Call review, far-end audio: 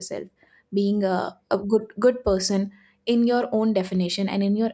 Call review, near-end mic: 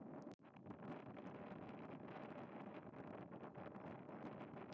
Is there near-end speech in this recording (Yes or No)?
No